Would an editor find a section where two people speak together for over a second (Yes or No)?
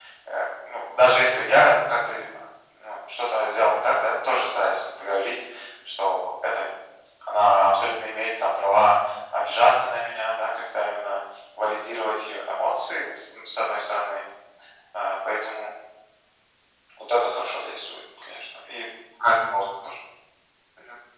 No